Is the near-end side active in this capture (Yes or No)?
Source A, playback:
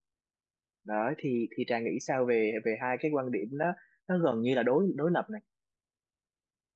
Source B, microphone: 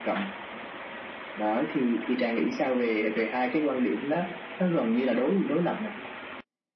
No